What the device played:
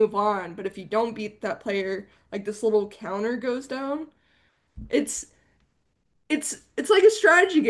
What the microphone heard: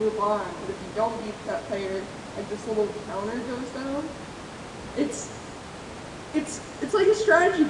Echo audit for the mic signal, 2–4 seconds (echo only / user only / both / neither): echo only